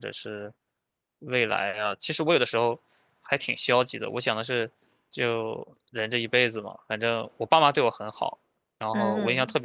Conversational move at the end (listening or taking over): listening